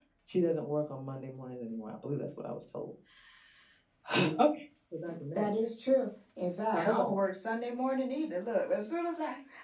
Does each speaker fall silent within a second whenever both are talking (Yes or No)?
Yes